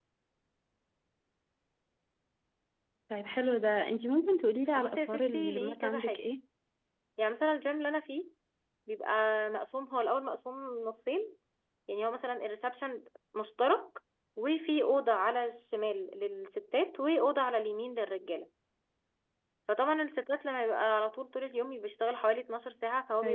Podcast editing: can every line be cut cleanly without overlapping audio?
No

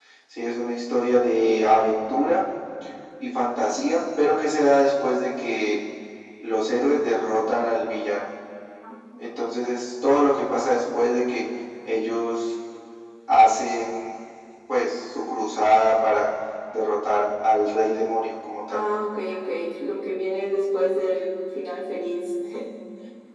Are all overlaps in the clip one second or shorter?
Yes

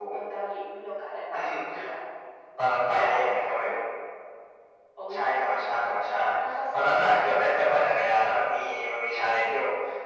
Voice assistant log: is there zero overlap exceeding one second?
No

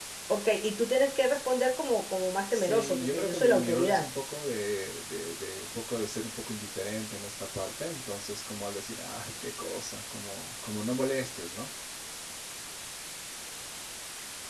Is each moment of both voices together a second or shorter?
No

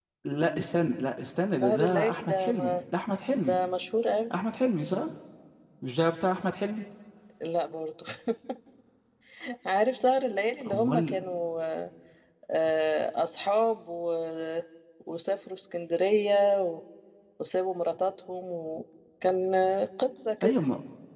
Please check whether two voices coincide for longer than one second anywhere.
Yes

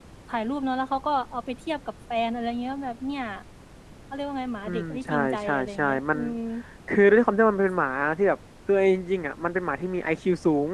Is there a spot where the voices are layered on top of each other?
Yes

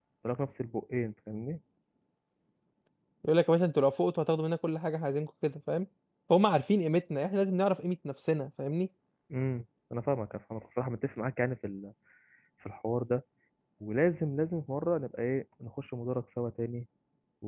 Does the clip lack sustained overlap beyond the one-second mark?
Yes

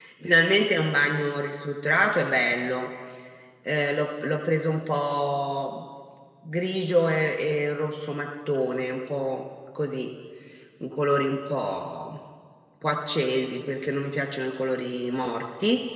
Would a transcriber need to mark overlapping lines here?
No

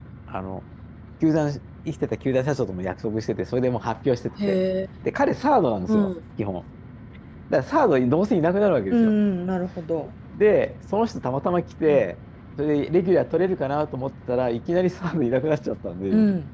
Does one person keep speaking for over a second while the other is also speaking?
No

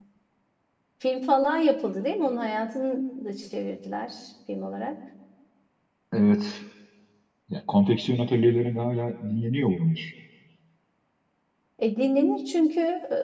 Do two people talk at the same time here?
No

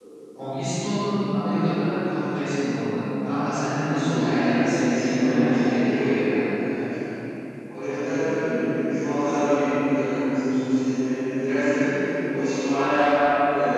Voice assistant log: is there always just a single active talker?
No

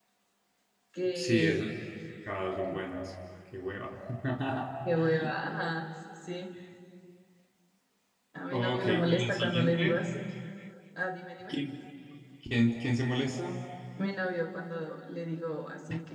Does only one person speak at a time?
No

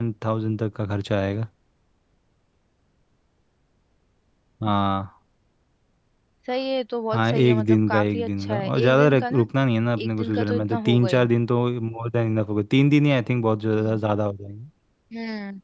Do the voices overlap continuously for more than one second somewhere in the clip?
Yes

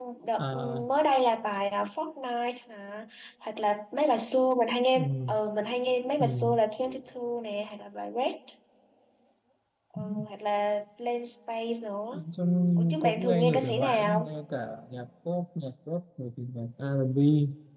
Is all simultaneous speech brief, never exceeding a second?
No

